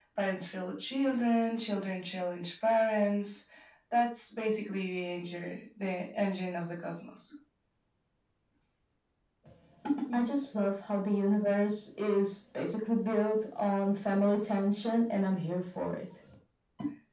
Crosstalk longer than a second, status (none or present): none